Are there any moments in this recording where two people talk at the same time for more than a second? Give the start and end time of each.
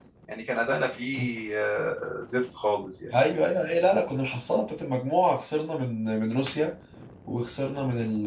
none

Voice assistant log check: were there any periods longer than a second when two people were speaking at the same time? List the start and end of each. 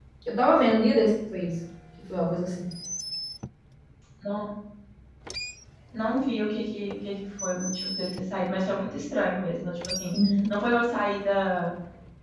none

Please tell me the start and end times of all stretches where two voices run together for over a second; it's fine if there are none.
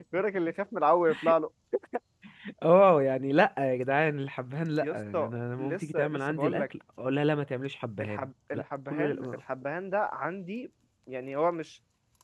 4.8-6.6, 8.0-9.3

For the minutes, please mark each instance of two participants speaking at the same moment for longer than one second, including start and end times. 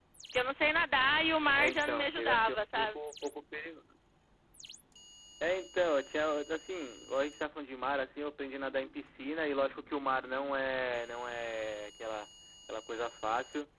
1.6-3.0

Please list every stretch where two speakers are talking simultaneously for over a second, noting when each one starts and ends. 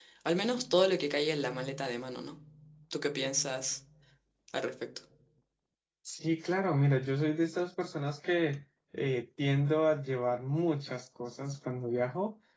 none

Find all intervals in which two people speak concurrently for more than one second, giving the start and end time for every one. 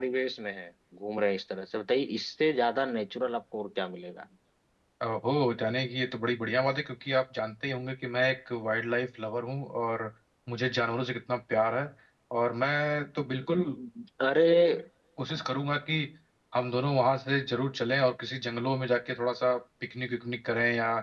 none

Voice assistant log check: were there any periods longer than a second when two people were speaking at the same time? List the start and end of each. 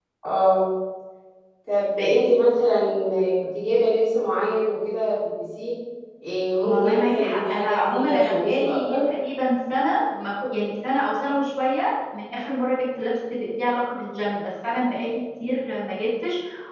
6.6-9.0

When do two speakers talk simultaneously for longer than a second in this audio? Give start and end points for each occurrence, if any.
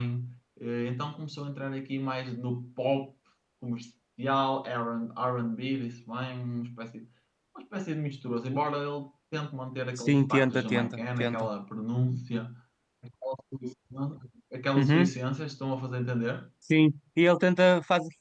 10.0-11.5

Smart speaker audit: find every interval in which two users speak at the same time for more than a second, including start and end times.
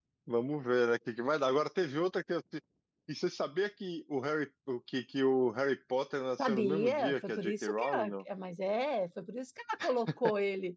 6.4-8.1

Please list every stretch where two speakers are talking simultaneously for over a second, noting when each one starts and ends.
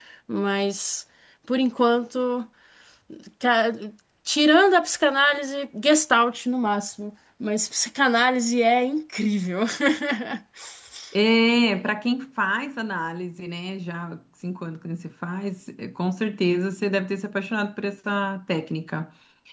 none

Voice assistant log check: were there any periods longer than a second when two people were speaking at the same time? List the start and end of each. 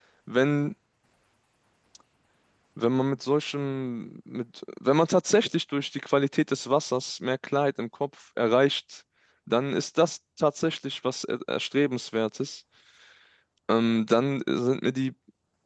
none

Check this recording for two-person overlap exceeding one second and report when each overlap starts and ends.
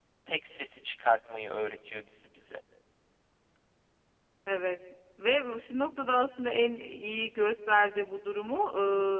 none

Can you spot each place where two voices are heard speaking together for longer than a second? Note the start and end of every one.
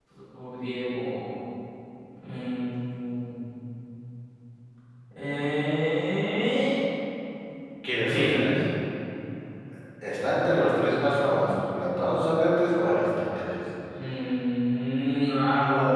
none

